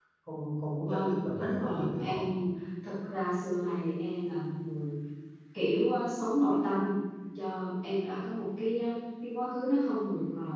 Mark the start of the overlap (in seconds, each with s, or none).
0.8 s